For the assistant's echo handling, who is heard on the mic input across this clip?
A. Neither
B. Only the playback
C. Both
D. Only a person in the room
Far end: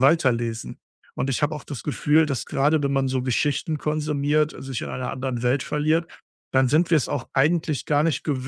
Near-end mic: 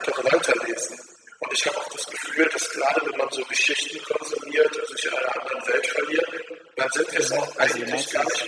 C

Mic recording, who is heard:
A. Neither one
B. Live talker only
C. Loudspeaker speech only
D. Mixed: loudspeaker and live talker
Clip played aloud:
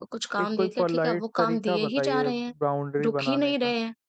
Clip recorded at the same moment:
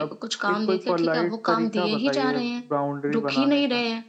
C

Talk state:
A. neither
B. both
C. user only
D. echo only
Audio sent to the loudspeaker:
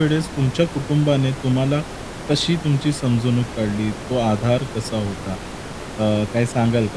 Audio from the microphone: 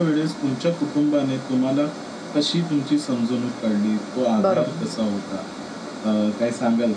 B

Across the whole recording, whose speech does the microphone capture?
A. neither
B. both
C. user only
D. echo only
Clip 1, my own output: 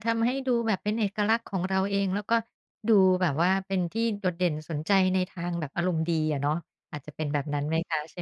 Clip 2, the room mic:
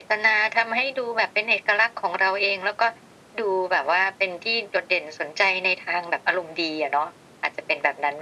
D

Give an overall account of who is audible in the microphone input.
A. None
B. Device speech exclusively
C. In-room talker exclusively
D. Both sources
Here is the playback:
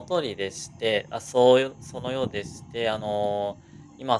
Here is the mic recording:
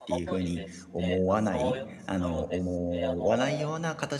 D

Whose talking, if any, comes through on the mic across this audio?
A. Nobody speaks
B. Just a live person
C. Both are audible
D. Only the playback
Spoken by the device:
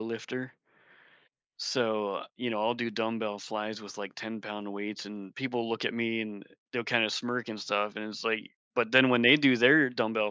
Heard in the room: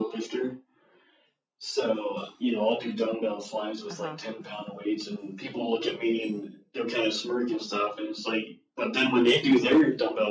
C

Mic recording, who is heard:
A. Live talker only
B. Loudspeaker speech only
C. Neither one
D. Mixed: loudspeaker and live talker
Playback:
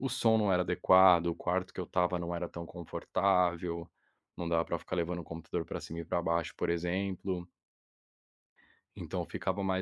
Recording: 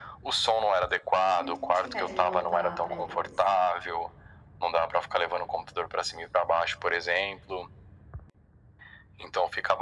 D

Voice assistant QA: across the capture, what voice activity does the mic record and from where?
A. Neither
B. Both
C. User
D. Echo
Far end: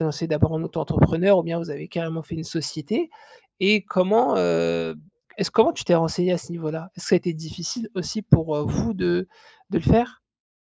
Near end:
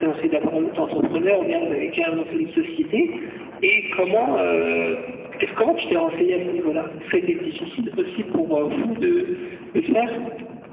D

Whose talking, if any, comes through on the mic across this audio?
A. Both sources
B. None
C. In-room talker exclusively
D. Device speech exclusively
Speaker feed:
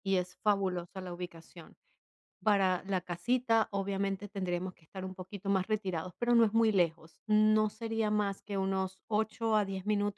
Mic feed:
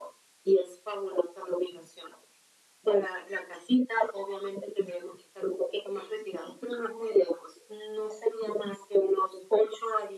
D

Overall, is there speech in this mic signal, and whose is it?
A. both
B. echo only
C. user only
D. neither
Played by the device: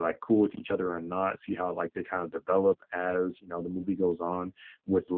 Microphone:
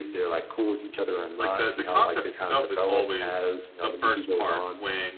A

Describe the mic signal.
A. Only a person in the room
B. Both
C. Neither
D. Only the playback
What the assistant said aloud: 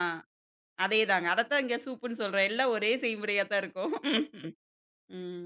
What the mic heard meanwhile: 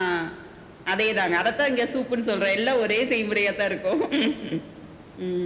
D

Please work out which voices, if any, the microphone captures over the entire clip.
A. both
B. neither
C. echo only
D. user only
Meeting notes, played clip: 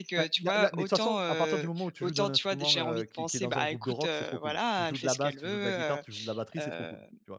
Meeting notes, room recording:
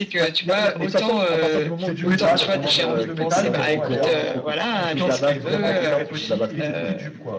A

